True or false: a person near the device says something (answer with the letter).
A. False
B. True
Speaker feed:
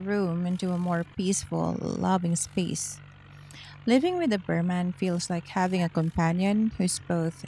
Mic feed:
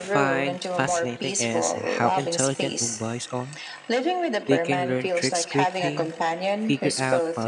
B